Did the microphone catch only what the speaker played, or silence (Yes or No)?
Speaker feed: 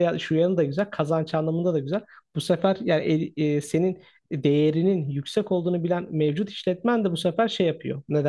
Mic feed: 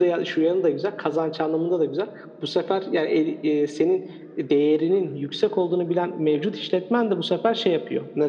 Yes